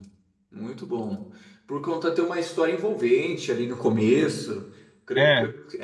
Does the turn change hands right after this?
No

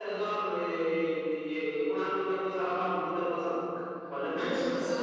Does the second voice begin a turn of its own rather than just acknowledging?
Yes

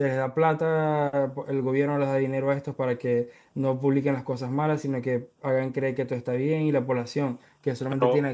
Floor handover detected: Yes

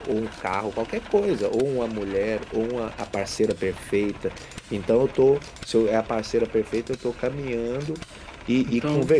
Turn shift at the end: No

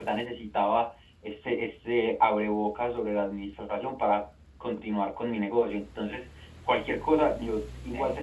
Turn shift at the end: No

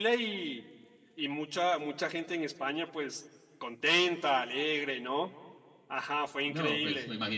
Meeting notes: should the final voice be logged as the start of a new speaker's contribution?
Yes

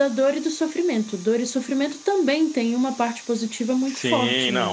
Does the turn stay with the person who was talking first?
No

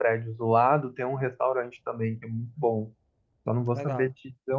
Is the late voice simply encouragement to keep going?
Yes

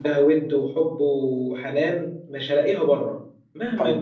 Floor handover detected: No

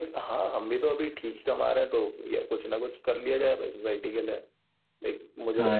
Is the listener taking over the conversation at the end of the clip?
Yes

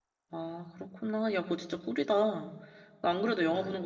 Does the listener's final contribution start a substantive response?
No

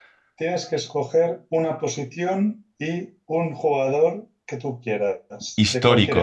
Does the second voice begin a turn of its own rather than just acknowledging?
Yes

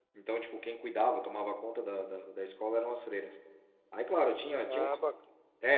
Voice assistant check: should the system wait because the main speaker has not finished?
Yes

